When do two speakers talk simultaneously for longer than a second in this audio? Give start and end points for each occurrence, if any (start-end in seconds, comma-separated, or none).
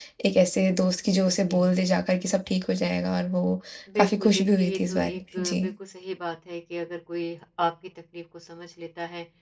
4.0-5.6